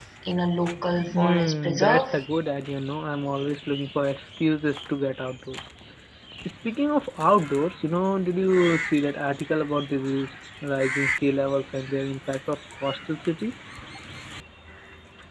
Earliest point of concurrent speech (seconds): 1.0 s

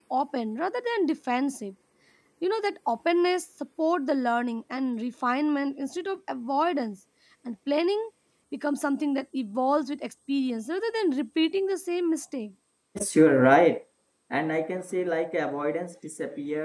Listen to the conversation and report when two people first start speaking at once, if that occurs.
none

